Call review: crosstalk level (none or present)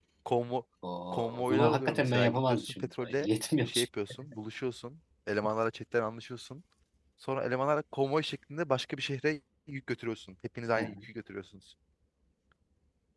present